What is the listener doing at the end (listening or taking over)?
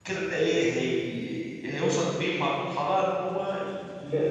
taking over